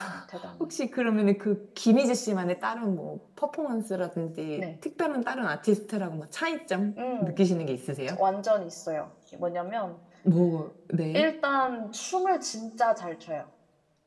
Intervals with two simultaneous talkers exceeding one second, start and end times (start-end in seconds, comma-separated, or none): none